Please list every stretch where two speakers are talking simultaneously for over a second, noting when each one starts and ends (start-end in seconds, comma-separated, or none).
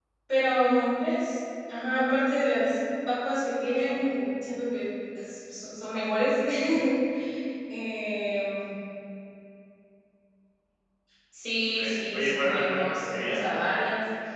12.1-13.5